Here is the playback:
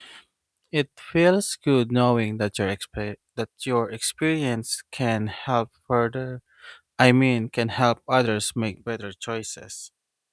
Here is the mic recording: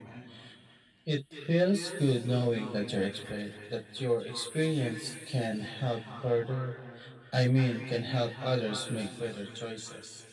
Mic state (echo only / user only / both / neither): echo only